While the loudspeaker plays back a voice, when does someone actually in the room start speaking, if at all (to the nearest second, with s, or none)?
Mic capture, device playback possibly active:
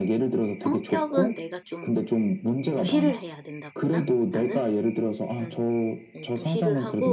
1 s